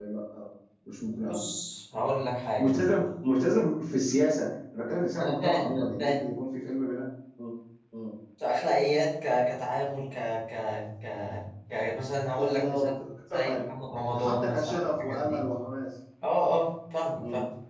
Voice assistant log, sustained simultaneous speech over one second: present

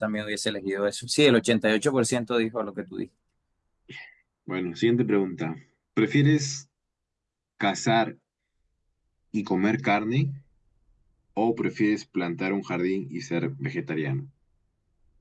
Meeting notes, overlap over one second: none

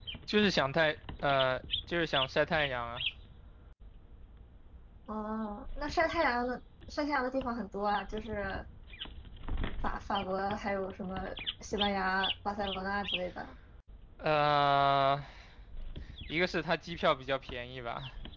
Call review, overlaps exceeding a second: none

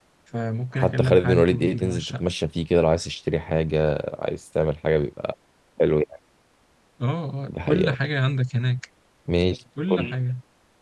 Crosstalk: present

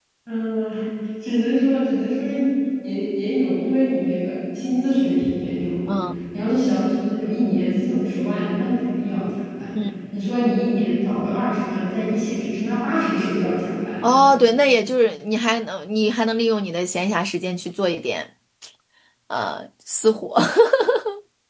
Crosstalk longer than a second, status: none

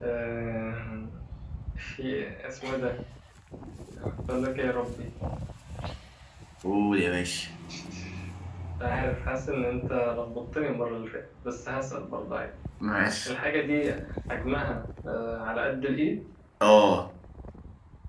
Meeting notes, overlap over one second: none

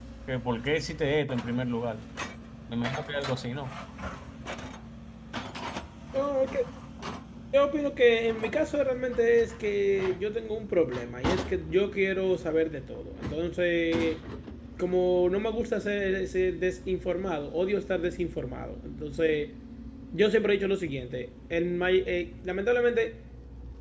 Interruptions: none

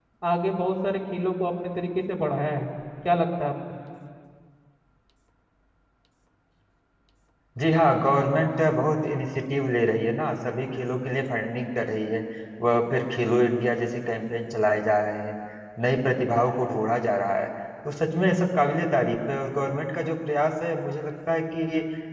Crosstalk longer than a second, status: none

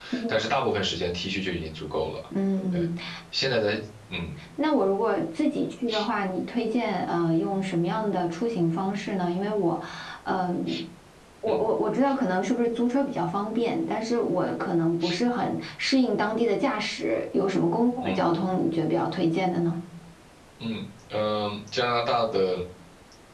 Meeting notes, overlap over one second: none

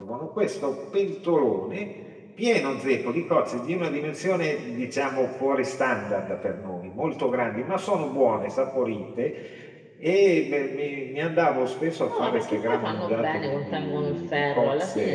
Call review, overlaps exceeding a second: present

